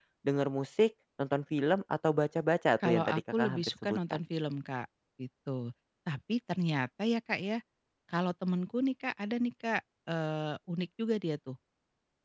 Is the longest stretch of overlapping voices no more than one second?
No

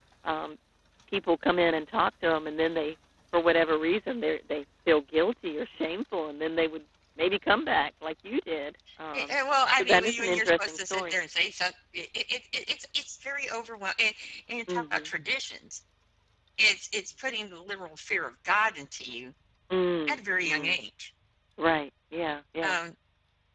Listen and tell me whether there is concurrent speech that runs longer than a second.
Yes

